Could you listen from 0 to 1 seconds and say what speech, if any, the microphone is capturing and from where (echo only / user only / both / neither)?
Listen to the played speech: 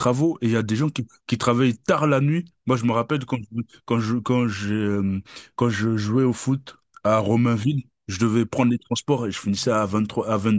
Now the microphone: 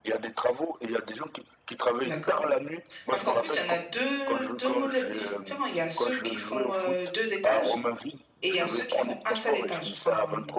echo only